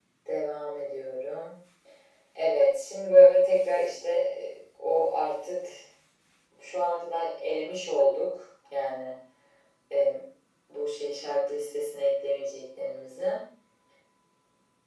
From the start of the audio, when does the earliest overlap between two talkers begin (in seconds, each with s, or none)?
none